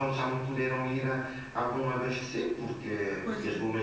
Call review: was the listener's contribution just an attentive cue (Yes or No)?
Yes